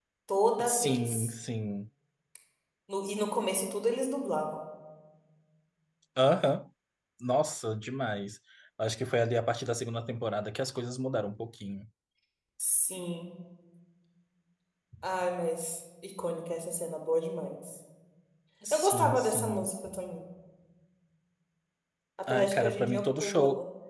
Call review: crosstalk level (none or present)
present